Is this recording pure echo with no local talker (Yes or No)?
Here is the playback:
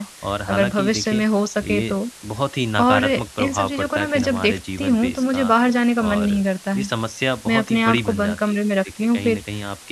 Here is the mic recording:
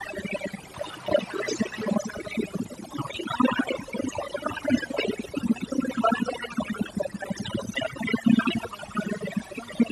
Yes